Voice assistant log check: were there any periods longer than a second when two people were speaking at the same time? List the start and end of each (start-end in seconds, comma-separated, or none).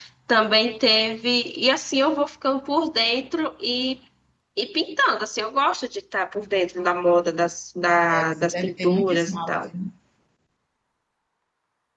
8.1-9.6